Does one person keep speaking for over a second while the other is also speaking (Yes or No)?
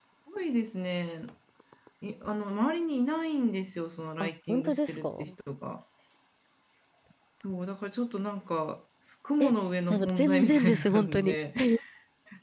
Yes